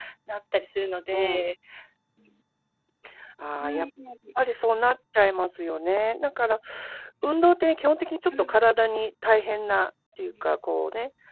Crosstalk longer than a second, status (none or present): none